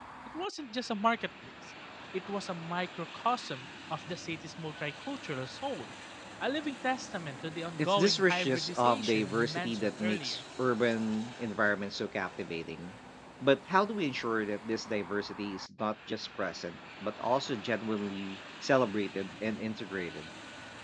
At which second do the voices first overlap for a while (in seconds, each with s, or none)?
7.8 s